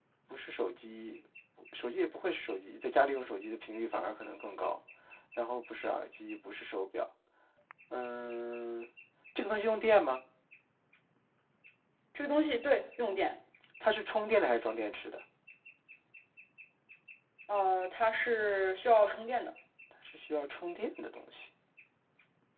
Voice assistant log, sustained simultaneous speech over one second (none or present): none